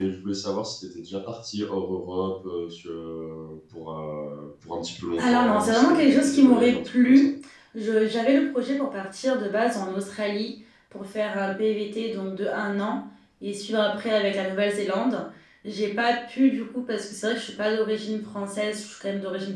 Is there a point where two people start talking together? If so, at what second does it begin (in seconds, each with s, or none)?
5.2 s